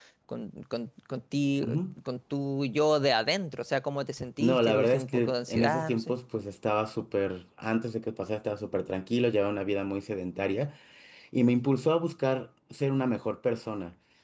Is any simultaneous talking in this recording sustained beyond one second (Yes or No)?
Yes